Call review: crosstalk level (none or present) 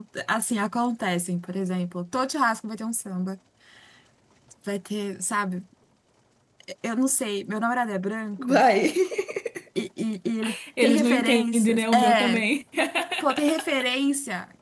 present